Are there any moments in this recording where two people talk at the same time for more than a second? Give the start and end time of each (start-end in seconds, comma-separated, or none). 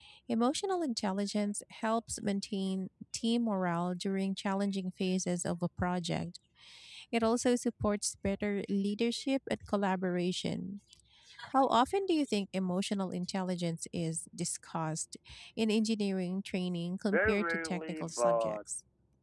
17.1-18.6